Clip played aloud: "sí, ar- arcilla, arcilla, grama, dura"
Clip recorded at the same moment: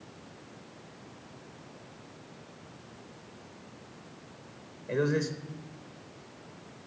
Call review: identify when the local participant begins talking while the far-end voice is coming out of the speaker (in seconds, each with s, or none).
4.9 s